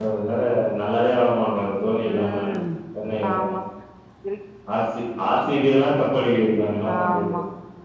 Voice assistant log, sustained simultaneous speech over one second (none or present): none